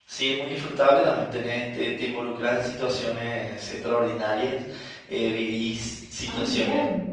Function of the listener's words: listening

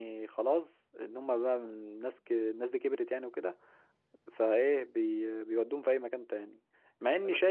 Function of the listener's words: listening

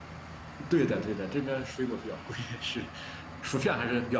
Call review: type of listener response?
listening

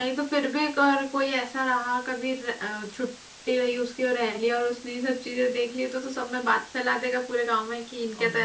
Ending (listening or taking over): taking over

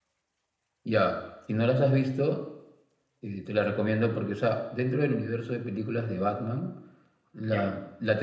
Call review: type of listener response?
listening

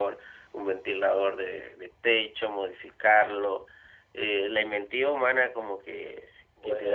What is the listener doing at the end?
listening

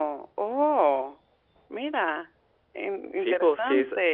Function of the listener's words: taking over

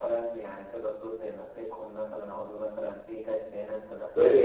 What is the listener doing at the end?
taking over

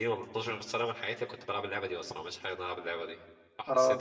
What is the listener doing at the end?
taking over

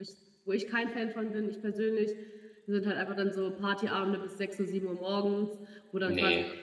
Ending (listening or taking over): listening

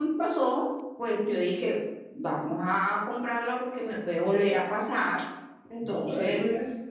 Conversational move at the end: taking over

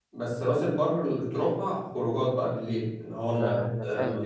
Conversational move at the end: taking over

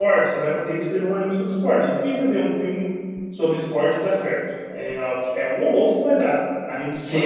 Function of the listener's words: taking over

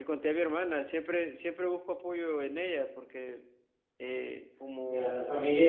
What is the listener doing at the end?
taking over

